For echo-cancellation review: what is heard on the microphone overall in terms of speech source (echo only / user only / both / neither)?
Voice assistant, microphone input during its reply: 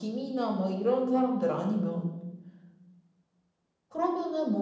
echo only